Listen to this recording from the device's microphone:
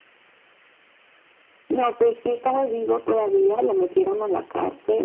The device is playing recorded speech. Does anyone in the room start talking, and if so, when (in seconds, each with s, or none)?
none